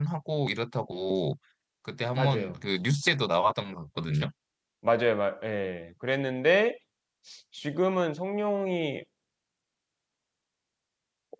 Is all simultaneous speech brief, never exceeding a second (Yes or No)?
Yes